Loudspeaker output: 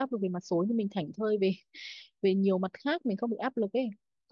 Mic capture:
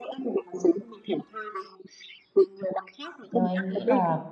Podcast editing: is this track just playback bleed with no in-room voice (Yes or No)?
No